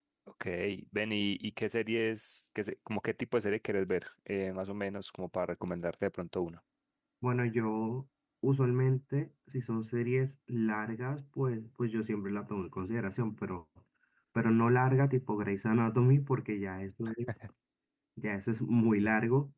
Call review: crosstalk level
none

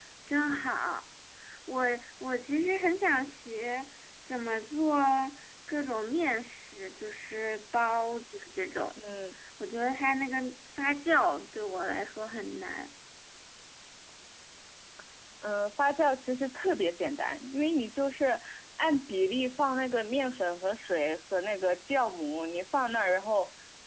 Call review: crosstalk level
none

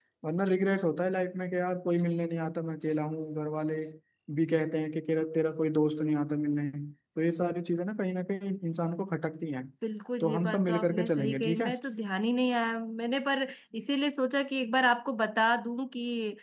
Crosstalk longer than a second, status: present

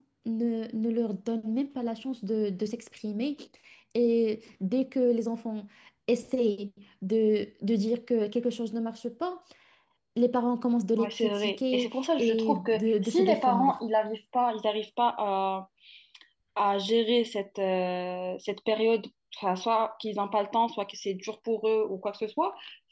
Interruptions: present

